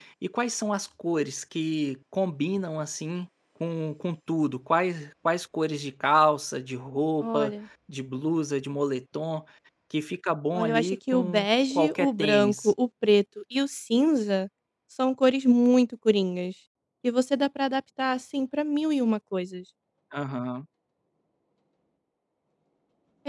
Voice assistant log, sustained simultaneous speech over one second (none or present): present